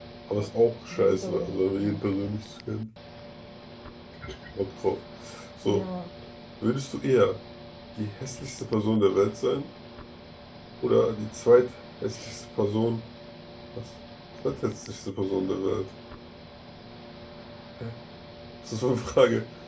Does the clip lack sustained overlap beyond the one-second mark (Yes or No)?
No